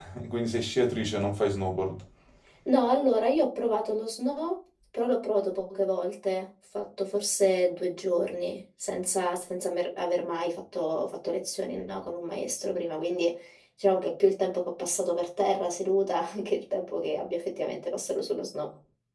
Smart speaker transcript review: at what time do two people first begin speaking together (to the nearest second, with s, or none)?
none